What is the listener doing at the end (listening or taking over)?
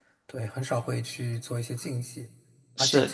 listening